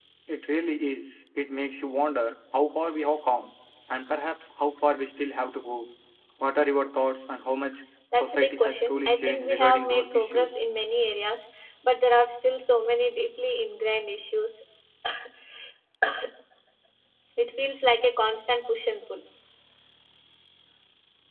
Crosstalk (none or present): present